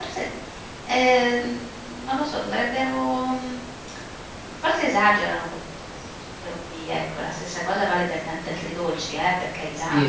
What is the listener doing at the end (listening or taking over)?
taking over